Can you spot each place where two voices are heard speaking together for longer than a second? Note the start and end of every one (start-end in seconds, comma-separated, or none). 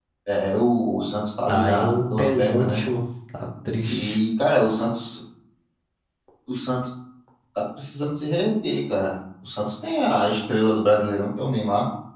1.5-2.8